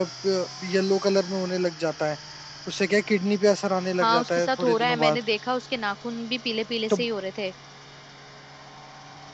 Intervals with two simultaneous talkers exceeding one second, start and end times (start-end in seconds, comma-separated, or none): 4.0-5.2